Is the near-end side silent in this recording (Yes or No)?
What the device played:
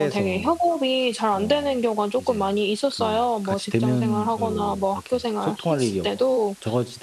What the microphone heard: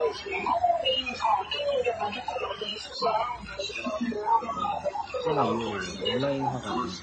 No